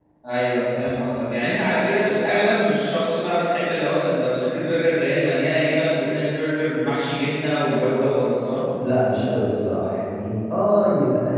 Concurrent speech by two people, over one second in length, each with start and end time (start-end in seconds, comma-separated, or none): none